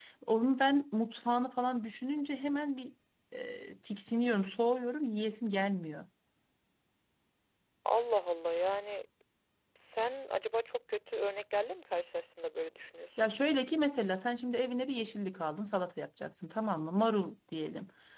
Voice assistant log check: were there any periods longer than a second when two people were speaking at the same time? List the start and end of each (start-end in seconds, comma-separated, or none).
none